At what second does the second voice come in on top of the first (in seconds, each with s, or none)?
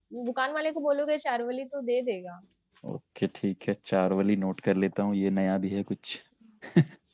none